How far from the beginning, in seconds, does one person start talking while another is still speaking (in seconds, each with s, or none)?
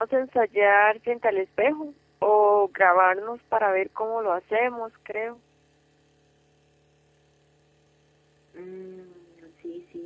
none